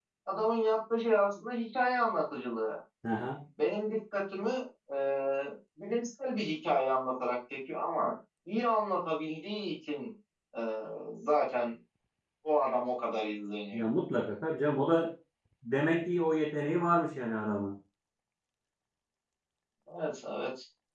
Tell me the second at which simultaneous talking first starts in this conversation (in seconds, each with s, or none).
none